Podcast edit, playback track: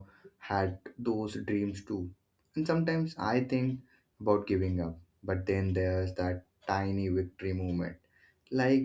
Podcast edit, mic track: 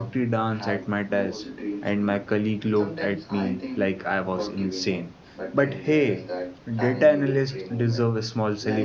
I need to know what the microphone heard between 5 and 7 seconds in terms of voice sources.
both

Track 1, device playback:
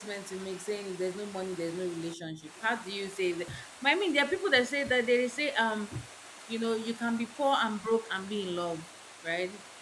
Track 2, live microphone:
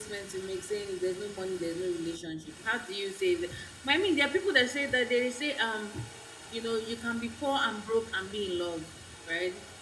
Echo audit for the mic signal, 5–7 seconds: echo only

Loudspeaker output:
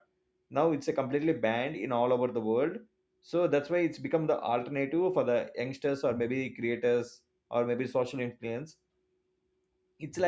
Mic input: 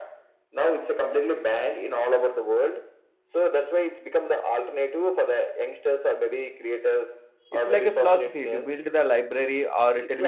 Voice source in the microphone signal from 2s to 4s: echo only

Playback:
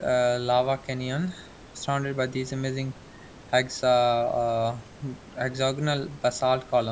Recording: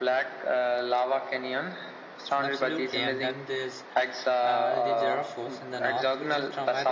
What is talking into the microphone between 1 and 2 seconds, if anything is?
echo only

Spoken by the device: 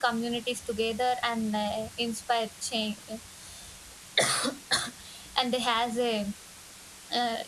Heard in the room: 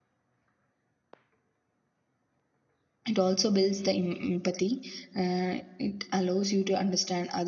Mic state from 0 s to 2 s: neither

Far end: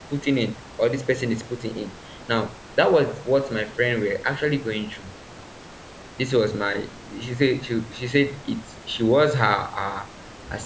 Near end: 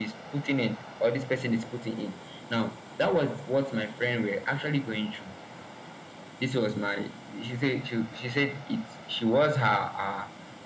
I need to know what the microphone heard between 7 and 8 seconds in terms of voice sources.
echo only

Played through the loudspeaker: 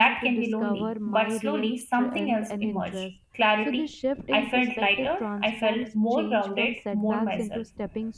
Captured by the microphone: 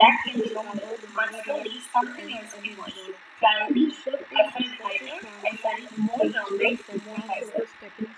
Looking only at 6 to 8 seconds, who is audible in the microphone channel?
echo only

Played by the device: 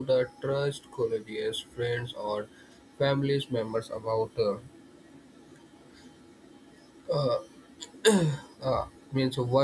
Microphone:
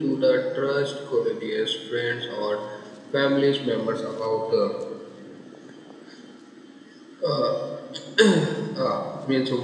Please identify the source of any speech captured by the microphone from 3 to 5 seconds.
echo only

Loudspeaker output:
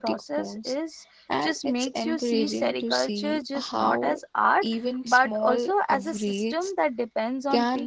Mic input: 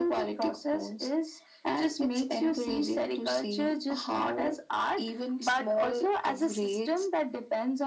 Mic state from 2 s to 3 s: echo only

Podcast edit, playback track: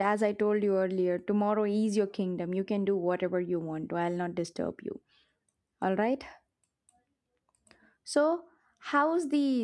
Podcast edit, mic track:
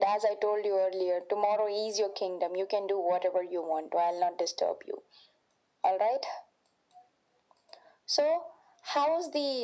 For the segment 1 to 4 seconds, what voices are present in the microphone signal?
echo only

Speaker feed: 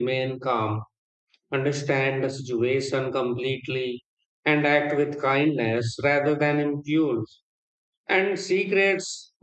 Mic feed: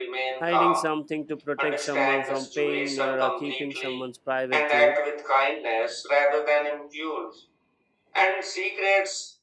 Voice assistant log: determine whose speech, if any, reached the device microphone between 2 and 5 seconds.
both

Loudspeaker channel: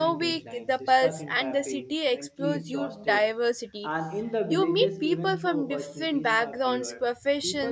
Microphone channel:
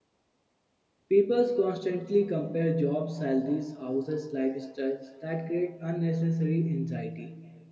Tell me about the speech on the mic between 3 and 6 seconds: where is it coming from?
user only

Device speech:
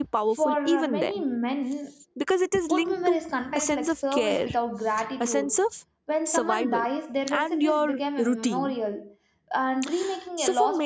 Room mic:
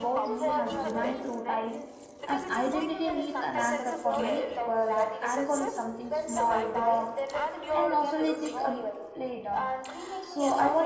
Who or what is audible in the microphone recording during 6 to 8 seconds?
both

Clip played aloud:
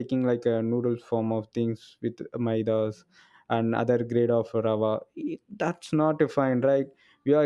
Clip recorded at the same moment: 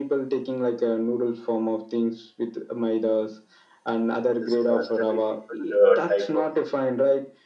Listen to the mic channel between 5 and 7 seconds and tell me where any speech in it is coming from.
both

